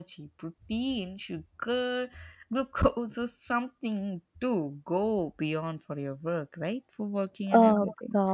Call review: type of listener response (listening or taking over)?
taking over